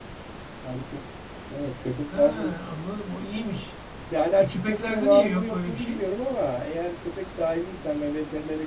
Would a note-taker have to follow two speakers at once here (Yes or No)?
Yes